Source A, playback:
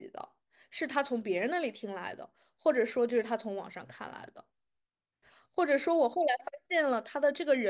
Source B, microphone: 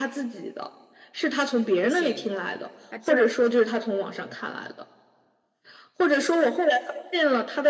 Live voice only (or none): 不行，他这儿